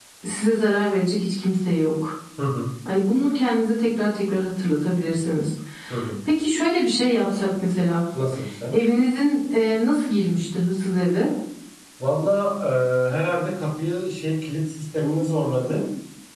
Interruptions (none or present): none